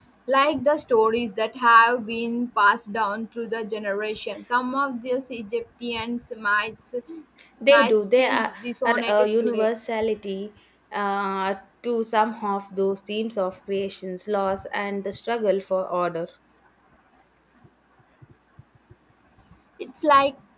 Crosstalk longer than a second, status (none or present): present